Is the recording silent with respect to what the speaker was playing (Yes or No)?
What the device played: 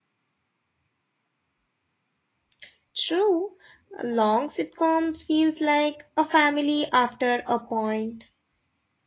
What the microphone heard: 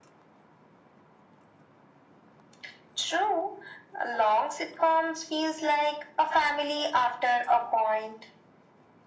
No